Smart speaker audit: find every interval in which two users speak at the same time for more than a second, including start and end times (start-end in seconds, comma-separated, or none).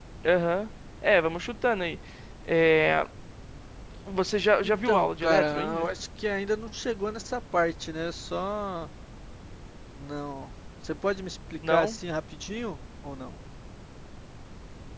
4.6-5.9